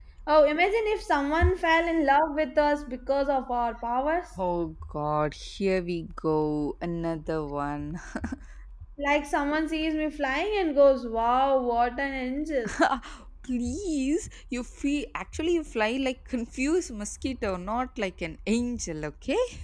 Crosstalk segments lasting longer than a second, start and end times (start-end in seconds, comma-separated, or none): none